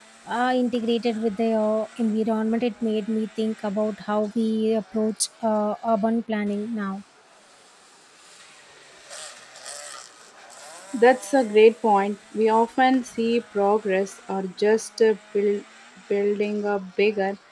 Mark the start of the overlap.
none

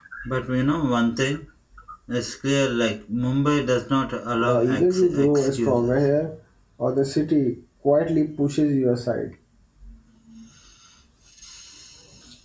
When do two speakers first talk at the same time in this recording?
4.4 s

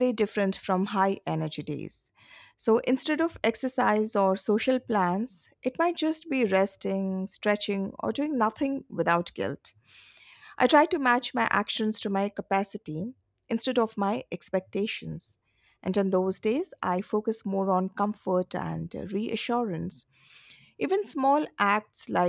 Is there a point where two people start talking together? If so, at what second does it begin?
none

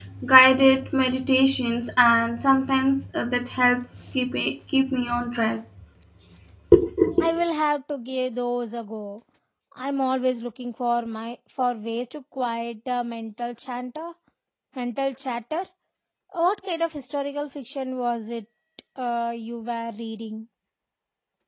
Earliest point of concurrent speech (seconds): none

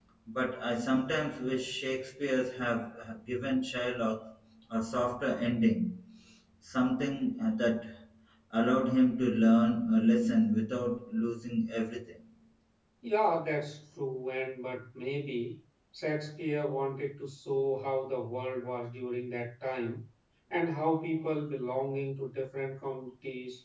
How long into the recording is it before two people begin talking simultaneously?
none

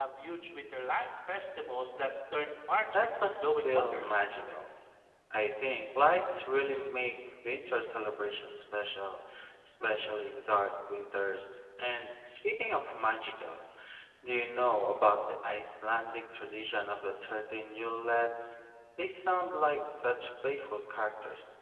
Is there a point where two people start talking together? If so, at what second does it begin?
2.9 s

